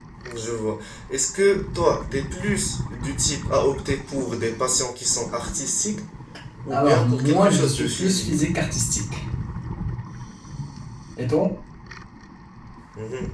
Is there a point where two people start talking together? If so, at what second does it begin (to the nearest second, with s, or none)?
7 s